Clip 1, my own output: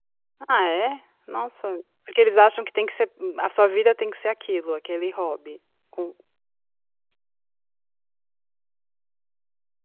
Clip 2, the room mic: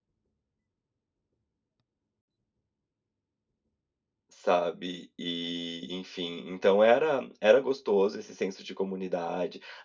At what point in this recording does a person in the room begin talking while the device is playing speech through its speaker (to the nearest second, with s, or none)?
4 s